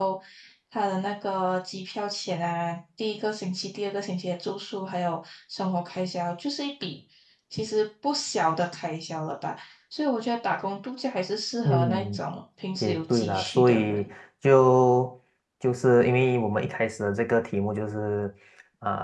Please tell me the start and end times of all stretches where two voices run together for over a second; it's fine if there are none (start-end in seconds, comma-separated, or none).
12.8-14.1